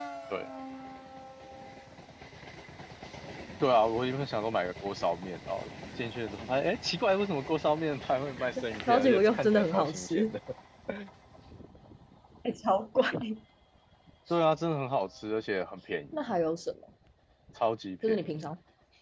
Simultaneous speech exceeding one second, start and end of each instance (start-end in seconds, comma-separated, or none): 8.8-10.3